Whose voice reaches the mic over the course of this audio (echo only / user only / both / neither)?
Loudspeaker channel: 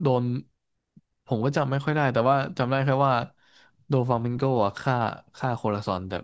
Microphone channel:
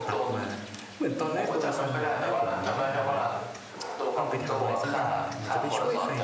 both